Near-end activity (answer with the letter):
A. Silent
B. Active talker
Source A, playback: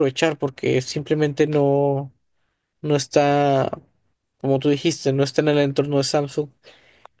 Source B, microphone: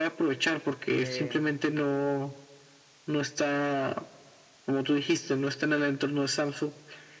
B